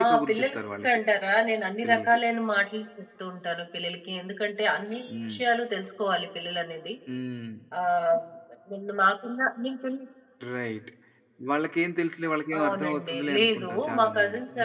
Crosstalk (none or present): present